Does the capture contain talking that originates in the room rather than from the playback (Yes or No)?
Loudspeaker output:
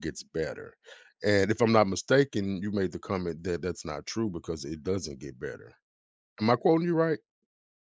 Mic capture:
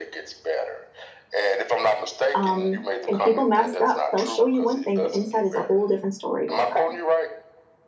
Yes